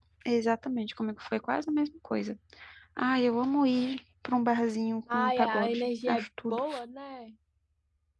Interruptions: present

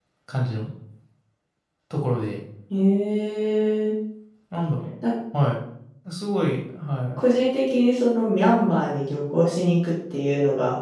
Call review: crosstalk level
none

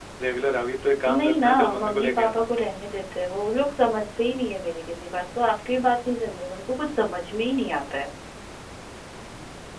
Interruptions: present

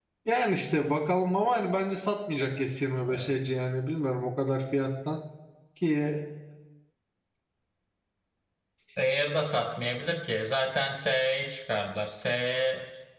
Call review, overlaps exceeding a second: none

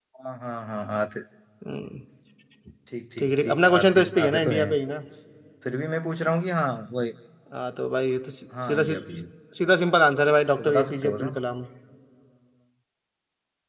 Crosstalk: present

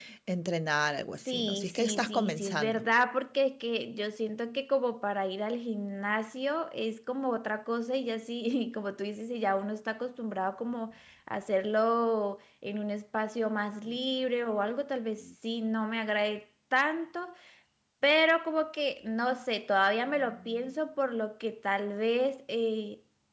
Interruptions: present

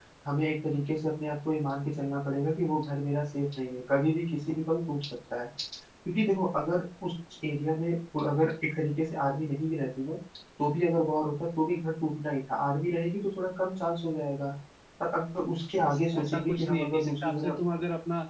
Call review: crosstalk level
present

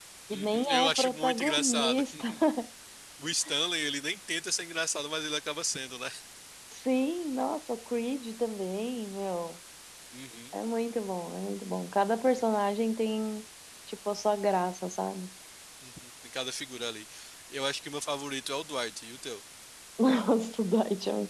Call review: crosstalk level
present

